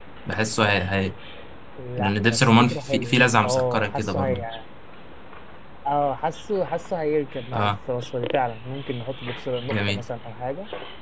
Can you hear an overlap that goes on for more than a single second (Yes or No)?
Yes